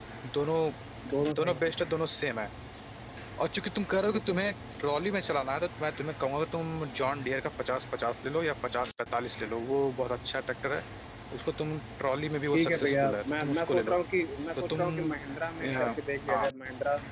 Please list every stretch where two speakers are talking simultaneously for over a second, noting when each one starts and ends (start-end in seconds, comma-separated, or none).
12.5-14.0